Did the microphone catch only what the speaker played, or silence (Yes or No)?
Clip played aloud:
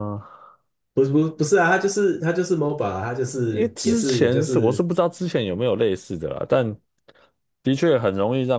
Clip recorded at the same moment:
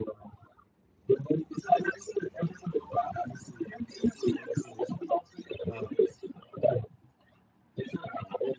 No